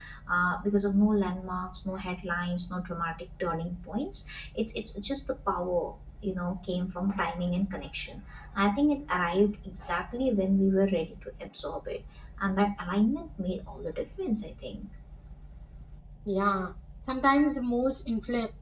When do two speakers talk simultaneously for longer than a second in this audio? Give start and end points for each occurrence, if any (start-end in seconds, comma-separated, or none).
none